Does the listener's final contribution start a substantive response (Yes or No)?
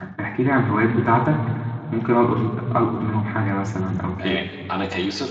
Yes